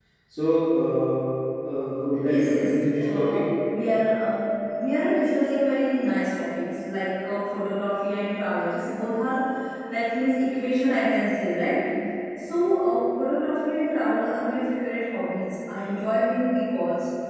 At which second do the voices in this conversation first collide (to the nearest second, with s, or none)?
2 s